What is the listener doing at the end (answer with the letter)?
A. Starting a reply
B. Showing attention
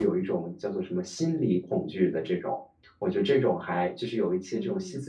B